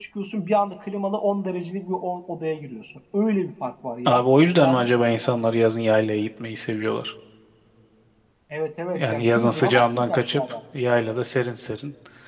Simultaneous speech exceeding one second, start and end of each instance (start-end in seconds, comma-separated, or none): 8.9-10.4